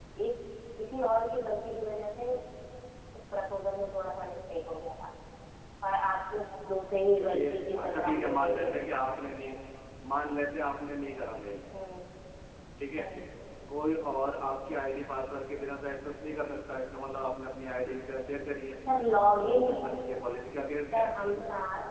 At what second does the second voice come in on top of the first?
7.1 s

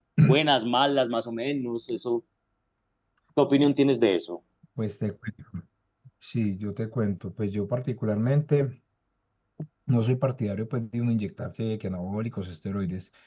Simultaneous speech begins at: none

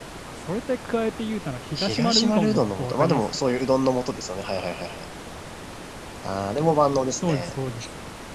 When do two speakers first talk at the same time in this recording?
1.8 s

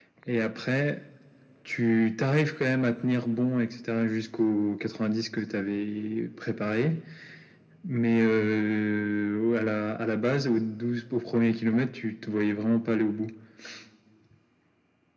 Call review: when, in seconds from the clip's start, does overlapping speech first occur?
none

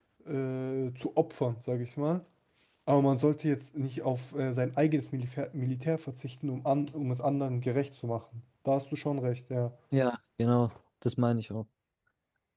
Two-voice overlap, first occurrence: none

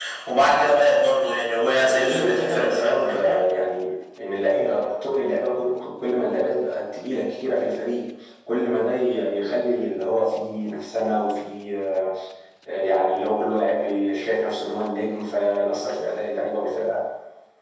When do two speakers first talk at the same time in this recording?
1.8 s

